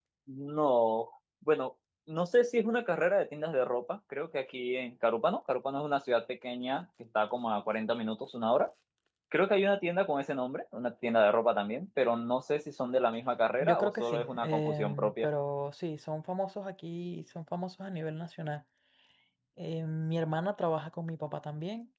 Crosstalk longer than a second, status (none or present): present